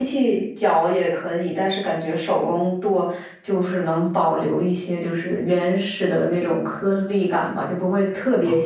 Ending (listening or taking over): listening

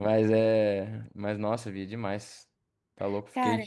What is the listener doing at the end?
listening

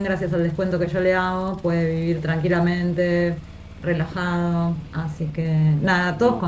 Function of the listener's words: listening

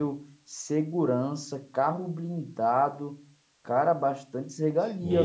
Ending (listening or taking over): taking over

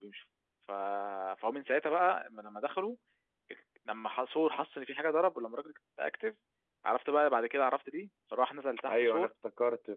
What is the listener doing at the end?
taking over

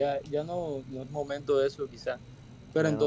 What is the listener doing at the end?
listening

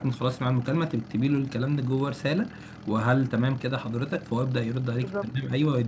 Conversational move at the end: listening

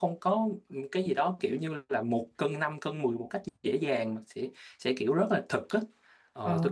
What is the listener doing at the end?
listening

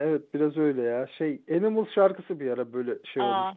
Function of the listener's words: taking over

